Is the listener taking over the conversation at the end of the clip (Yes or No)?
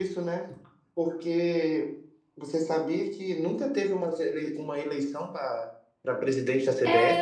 Yes